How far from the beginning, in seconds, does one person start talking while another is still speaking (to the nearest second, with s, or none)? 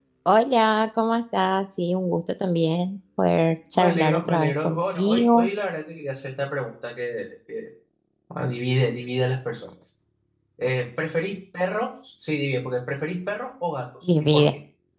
4 s